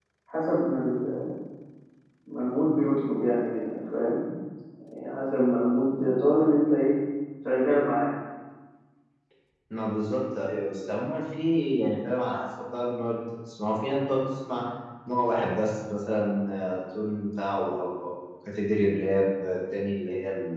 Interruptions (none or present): none